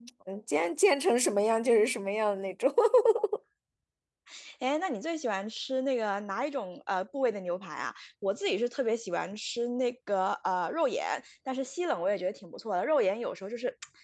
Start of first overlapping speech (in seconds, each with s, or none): none